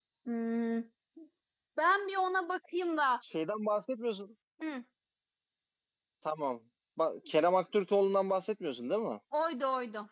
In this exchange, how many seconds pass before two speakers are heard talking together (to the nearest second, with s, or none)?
none